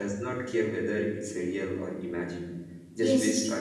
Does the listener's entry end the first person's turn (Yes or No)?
No